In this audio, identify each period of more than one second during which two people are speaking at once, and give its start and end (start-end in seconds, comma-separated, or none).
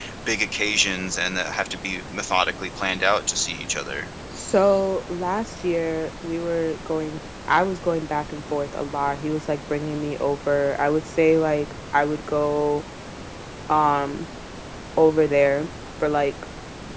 none